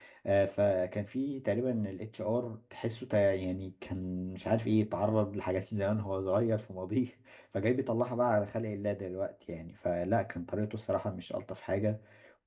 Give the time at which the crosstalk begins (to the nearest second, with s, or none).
none